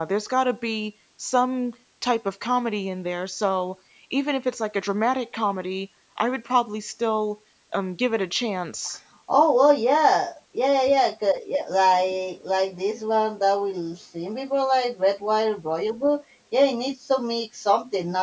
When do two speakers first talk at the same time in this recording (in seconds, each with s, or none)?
none